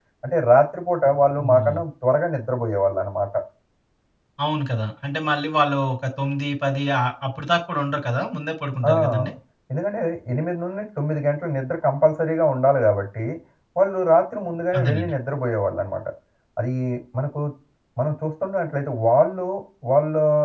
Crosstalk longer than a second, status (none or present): none